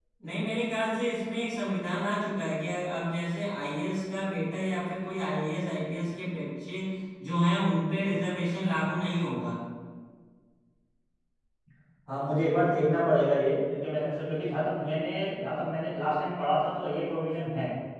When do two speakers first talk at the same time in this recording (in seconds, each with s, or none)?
none